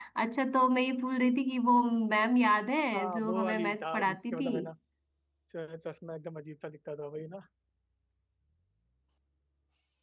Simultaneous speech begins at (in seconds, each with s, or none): 2.9 s